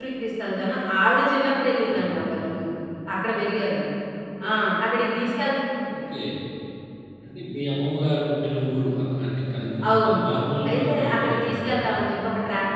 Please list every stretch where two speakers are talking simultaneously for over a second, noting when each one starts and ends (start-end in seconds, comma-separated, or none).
10.7-11.9